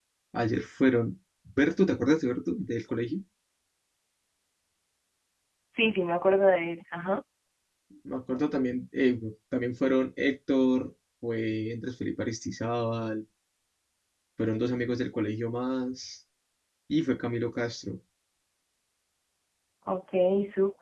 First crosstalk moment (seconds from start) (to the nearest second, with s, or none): none